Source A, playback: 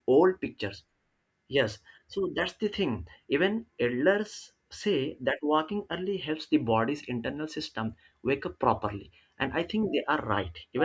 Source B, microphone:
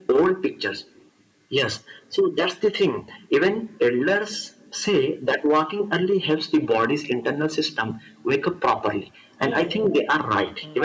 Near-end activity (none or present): present